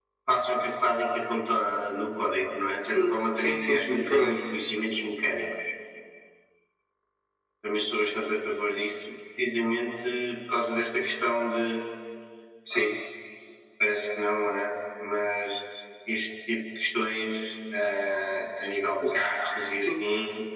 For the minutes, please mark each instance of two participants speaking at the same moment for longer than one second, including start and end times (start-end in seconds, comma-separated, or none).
2.9-4.3